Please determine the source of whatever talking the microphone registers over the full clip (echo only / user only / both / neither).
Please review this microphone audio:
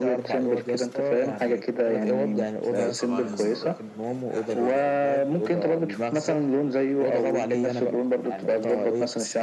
both